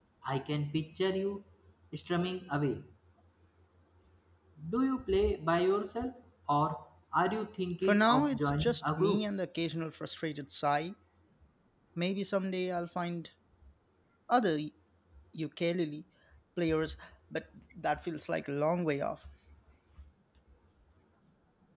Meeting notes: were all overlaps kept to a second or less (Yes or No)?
No